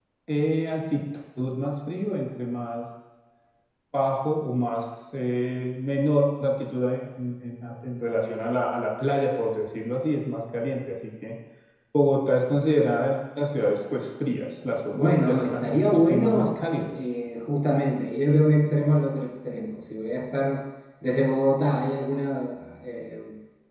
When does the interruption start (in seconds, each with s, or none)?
14.9 s